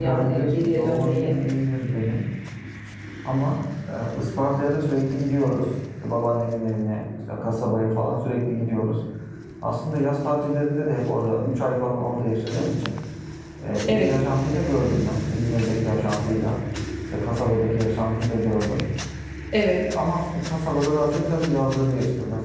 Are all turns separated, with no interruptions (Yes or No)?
No